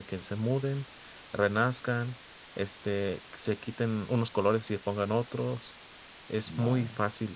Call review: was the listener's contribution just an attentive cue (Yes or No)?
Yes